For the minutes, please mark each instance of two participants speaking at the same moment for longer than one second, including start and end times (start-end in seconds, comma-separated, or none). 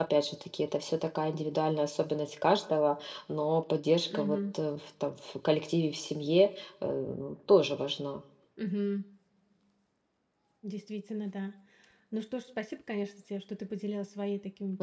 none